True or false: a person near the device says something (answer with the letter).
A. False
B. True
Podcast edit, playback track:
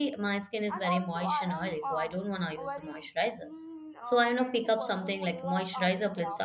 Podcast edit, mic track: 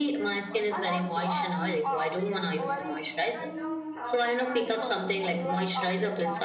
B